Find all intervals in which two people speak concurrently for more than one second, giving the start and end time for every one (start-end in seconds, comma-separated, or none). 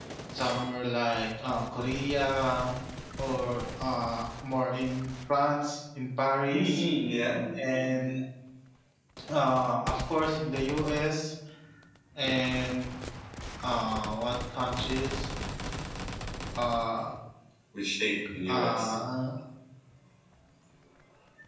none